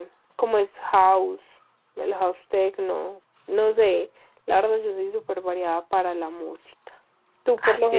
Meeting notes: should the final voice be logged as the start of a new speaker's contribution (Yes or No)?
Yes